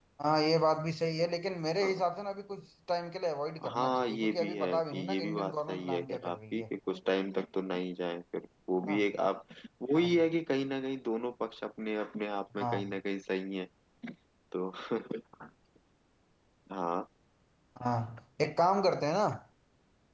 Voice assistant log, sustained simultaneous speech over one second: present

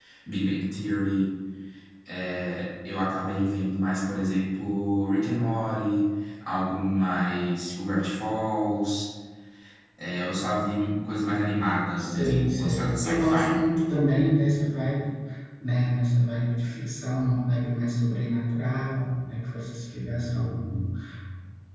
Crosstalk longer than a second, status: present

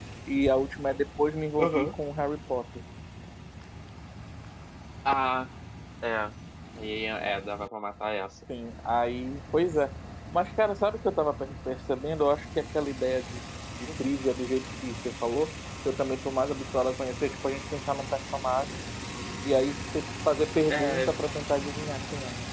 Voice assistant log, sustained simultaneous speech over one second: none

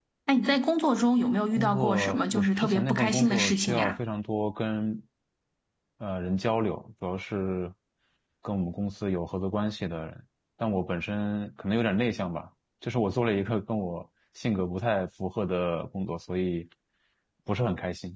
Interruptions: present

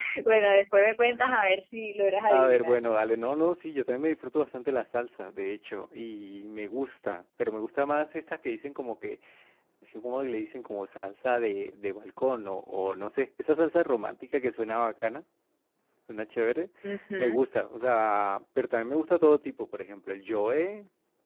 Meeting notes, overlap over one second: none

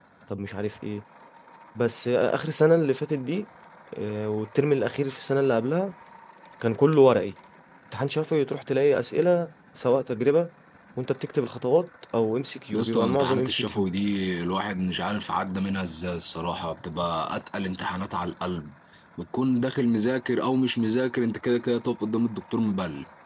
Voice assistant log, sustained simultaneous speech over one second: present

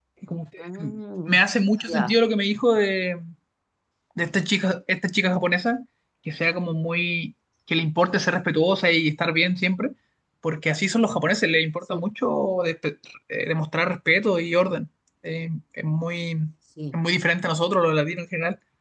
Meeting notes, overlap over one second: none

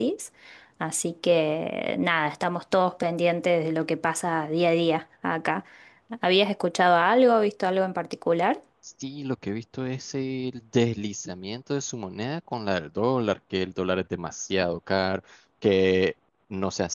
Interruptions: none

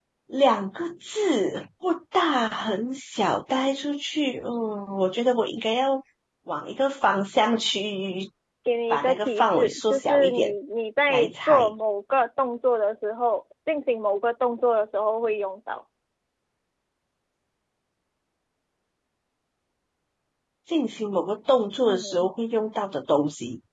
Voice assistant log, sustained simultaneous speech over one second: present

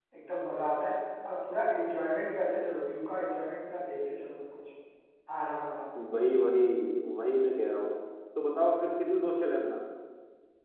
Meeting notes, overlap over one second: none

